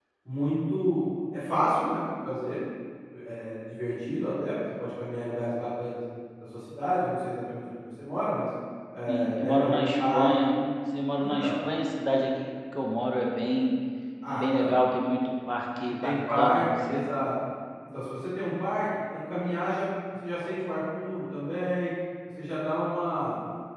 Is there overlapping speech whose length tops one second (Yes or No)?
Yes